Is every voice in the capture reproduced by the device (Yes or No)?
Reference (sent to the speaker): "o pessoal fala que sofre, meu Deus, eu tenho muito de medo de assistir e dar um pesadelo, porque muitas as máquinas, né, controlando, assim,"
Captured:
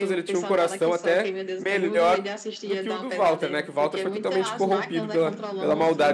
No